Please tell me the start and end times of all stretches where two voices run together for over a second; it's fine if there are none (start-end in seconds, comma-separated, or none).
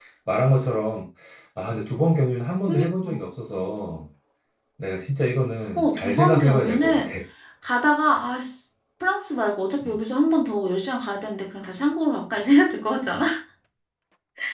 5.8-7.1